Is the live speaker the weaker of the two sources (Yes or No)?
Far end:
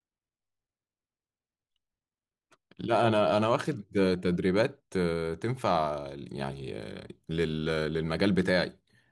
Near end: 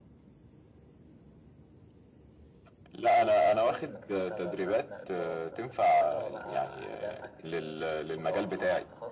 Yes